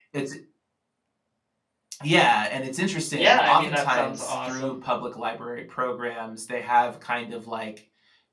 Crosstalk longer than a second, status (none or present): present